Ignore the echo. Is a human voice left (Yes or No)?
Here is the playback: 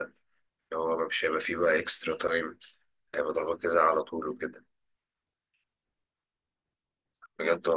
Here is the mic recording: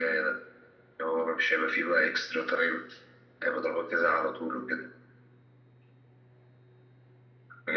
No